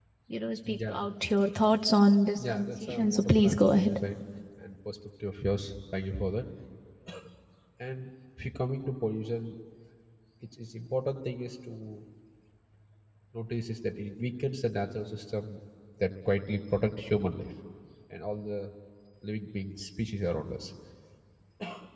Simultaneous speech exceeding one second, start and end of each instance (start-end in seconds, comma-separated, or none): 2.4-3.9